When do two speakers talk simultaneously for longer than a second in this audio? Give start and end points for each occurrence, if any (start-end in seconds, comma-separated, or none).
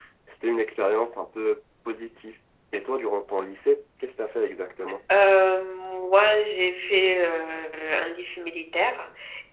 none